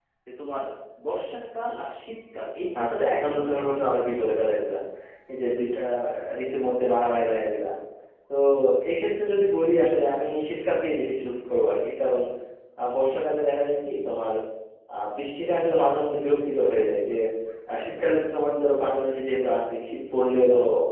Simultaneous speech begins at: 2.8 s

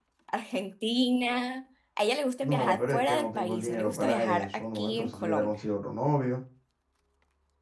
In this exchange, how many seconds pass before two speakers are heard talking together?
2.4 s

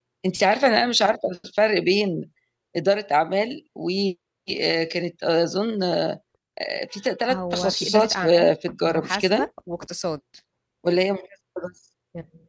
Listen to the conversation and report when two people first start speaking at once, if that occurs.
7.3 s

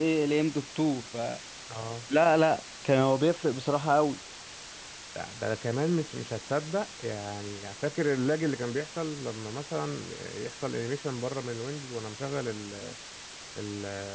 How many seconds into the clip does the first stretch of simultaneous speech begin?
none

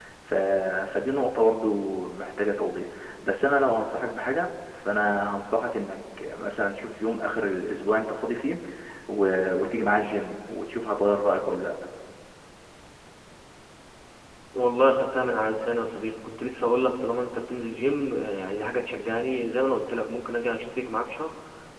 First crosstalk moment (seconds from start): none

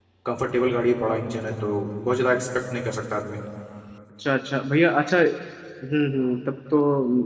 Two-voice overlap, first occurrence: none

